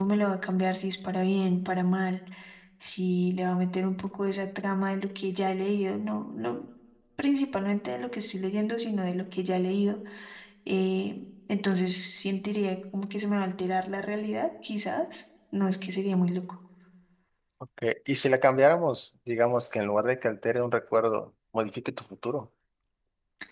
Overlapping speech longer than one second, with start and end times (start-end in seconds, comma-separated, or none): none